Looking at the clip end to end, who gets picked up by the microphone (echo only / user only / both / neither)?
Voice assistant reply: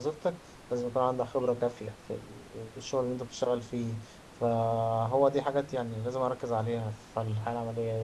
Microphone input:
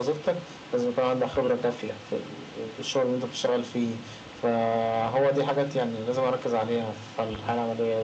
echo only